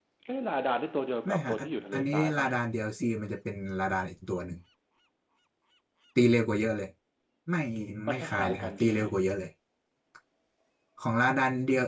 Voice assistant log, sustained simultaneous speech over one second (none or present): present